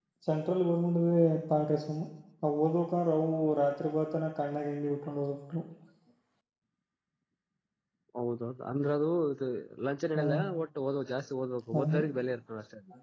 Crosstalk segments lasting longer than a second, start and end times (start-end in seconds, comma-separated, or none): none